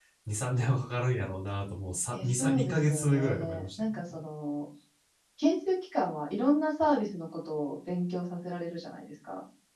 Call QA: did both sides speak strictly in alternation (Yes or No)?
No